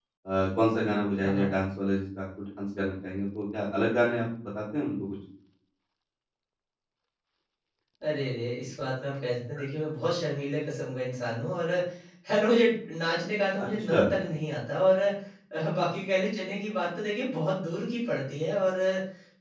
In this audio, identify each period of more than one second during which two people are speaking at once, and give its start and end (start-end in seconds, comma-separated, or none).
none